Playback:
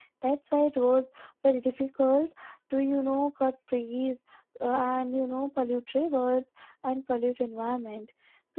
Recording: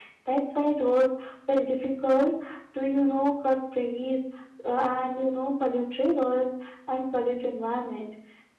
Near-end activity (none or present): none